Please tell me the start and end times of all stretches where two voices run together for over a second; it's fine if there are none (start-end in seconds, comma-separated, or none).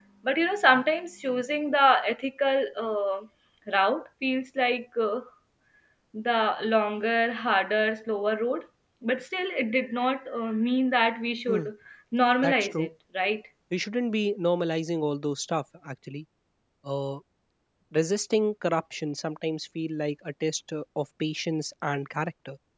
none